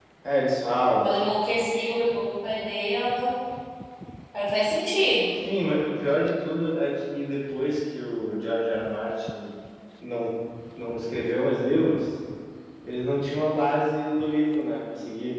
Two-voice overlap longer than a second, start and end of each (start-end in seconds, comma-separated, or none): none